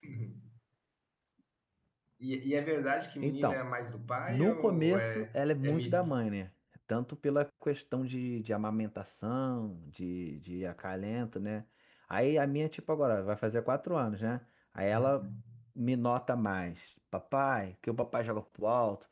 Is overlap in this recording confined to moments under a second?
No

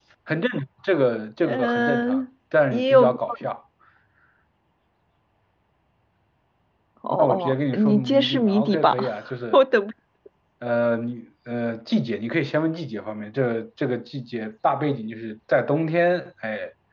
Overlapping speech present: Yes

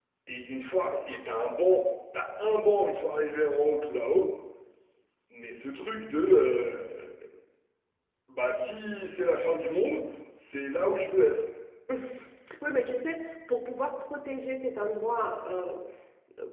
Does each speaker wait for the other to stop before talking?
Yes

